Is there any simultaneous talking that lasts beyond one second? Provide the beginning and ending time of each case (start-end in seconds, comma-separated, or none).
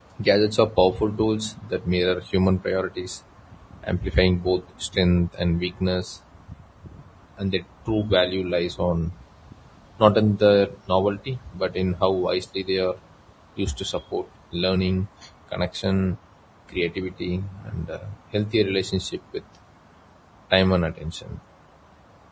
none